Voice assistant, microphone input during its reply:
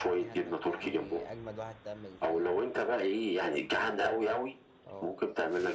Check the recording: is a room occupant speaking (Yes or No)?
Yes